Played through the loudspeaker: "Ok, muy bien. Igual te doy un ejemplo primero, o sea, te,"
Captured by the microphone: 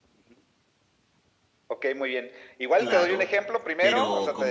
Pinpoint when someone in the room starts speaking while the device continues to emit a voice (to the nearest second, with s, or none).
3 s